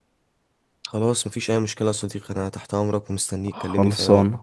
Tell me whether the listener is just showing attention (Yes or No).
No